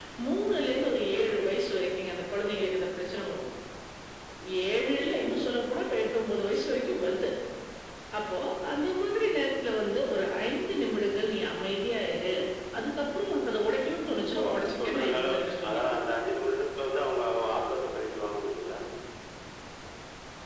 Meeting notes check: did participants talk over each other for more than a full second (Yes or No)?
Yes